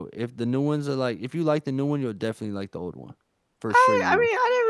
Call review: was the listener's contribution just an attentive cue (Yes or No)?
No